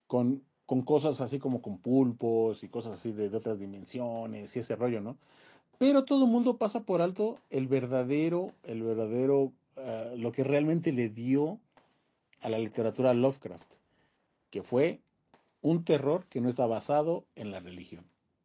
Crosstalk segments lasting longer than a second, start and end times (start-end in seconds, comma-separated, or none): none